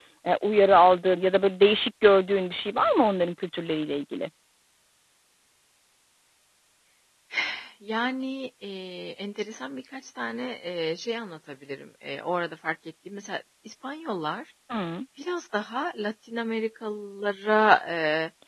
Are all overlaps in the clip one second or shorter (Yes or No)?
Yes